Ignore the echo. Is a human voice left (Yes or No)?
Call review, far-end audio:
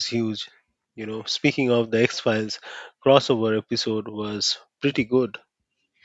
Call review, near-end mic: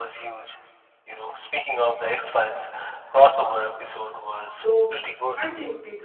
Yes